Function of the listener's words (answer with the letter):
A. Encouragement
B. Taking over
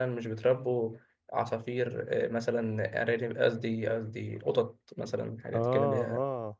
B